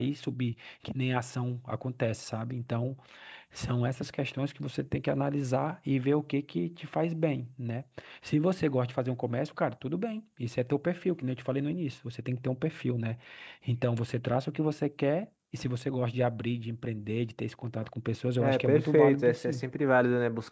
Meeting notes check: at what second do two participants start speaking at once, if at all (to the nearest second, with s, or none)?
18 s